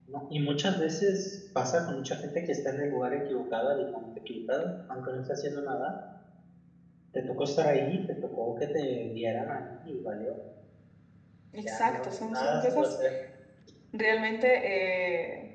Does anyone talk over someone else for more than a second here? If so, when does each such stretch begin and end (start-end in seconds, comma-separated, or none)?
11.6-13.0